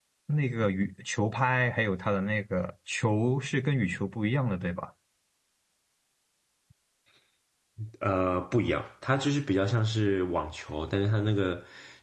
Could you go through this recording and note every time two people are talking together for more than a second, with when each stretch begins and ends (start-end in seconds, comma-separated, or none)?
none